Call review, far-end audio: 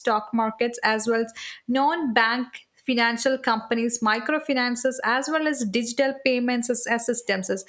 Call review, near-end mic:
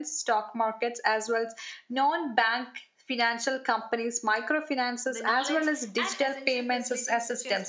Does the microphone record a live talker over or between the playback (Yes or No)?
Yes